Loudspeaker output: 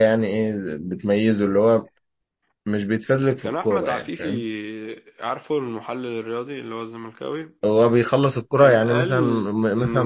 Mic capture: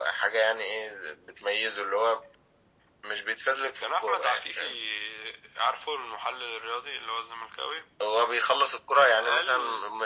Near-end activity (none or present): none